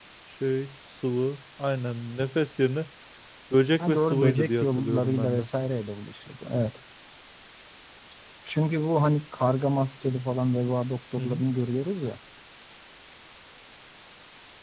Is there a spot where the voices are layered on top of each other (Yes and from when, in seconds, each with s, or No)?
Yes, from 3.9 s